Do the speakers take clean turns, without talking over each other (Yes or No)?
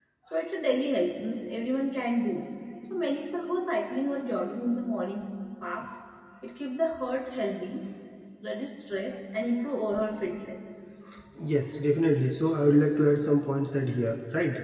Yes